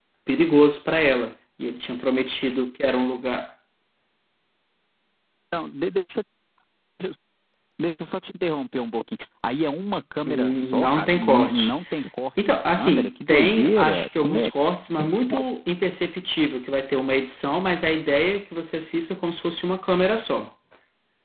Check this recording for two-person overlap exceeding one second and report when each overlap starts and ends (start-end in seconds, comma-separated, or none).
10.2-11.7, 12.4-14.5